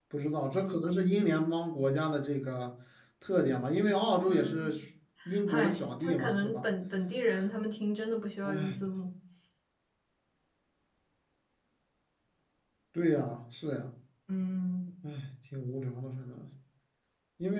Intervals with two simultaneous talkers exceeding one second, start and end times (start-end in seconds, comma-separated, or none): 5.5-6.7